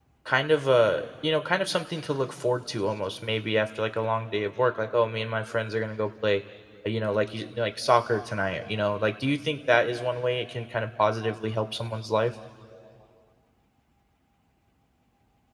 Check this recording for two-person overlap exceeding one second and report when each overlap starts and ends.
none

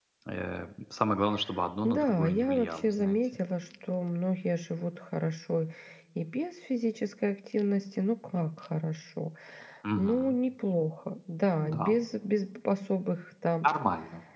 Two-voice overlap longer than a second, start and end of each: 1.8-3.2

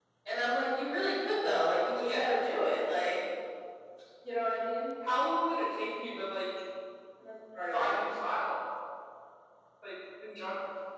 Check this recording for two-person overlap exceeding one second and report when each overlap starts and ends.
none

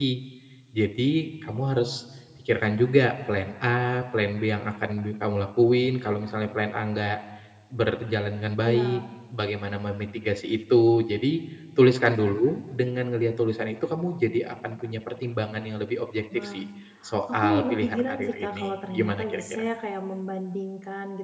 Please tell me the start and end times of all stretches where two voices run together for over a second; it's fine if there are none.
17.4-19.6

